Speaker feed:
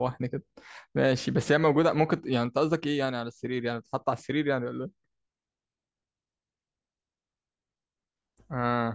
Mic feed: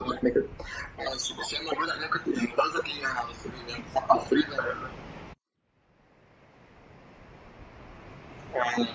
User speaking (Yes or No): No